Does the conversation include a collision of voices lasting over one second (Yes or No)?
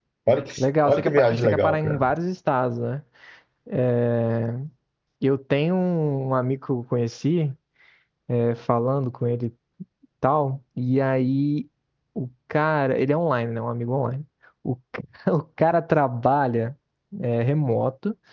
Yes